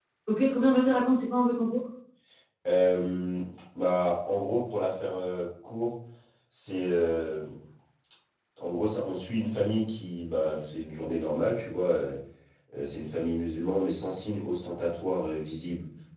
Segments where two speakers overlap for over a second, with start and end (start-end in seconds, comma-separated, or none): none